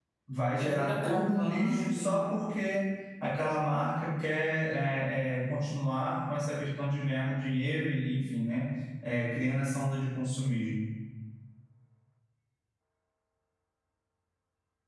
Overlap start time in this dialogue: 0.6 s

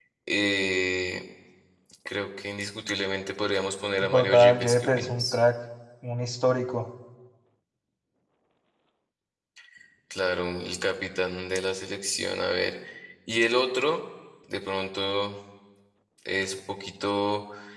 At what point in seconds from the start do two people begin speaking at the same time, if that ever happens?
4.0 s

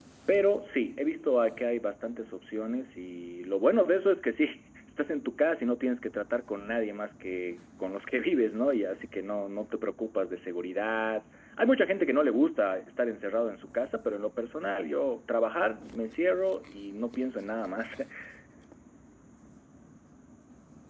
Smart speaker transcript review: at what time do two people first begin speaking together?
none

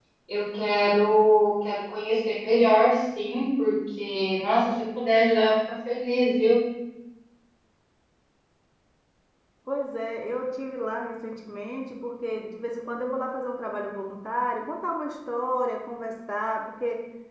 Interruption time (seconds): none

